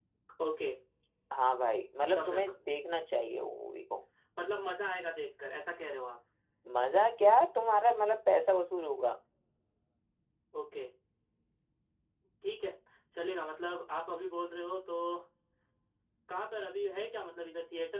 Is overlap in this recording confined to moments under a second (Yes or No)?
Yes